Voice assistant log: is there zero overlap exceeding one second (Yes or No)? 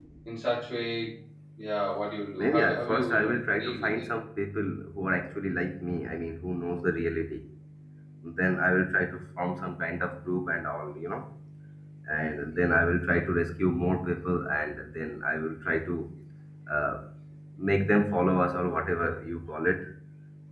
No